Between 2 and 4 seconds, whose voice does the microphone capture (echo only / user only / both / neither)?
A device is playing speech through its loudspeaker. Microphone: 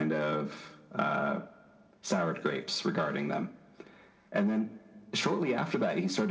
echo only